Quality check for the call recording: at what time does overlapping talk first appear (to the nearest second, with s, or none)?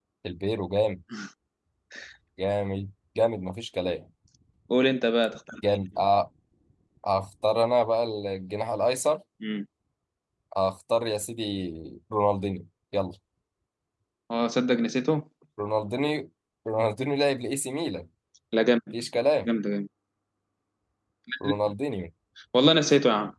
none